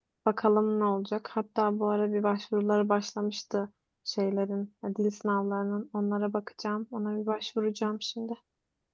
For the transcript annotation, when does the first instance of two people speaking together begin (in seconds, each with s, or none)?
none